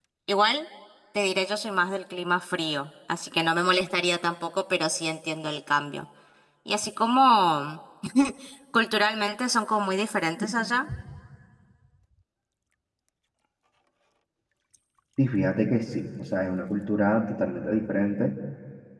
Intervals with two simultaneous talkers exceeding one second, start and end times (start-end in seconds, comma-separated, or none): none